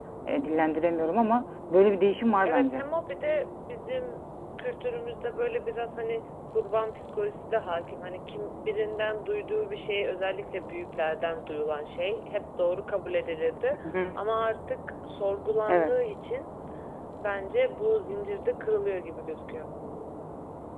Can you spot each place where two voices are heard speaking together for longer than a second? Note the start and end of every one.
none

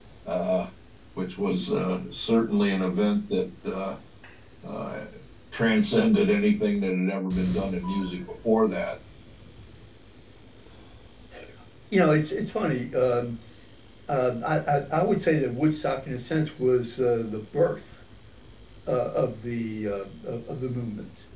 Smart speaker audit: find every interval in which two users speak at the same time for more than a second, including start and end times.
none

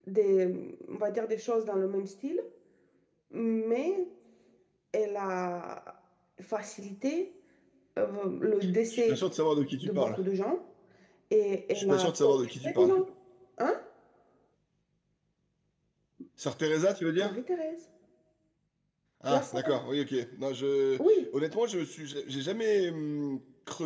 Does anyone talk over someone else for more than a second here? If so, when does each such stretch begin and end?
11.7-13.0

